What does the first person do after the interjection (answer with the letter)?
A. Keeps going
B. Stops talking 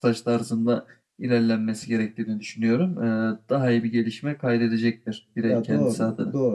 B